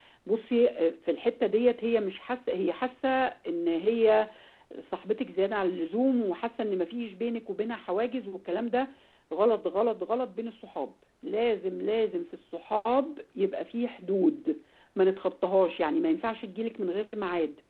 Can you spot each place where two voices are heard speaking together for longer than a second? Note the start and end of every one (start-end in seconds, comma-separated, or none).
none